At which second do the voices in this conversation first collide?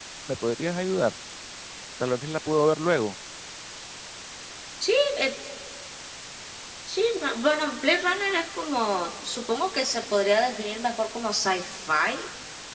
none

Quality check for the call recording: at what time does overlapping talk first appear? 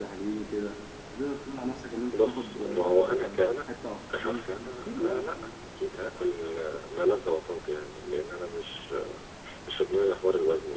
2.1 s

